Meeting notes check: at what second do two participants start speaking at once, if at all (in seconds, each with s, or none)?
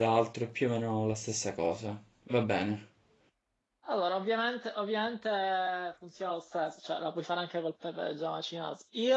none